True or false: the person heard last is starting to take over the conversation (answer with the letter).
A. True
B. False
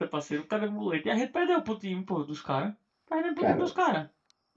B